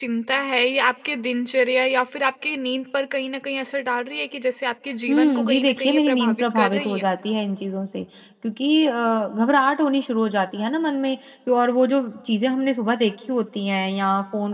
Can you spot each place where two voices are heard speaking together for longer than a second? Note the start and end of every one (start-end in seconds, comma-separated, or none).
5.1-7.1